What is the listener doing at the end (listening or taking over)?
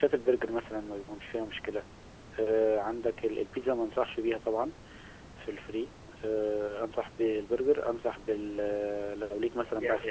taking over